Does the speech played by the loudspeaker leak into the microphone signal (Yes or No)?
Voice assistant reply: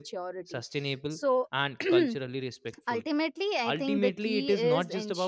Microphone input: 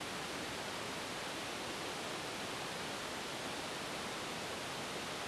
No